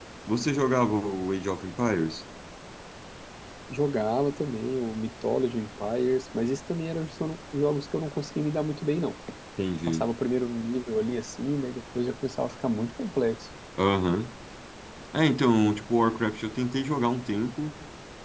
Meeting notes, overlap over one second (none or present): none